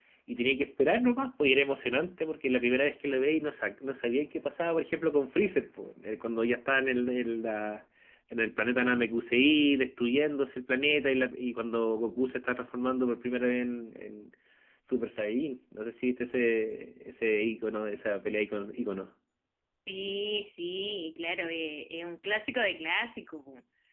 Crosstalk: none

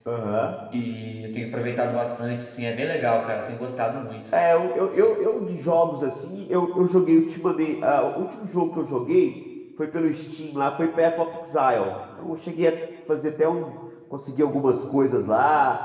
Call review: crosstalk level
none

